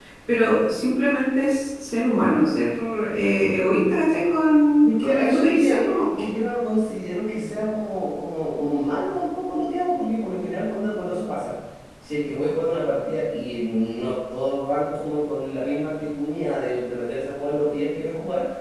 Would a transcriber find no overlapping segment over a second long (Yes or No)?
No